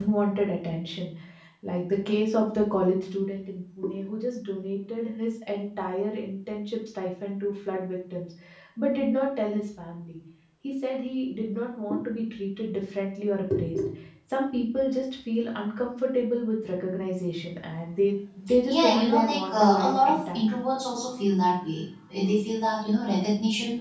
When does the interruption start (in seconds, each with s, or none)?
18.7 s